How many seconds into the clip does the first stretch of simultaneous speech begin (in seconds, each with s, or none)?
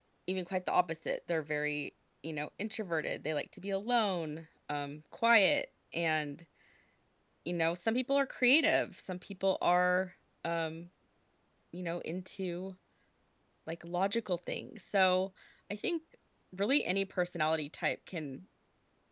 none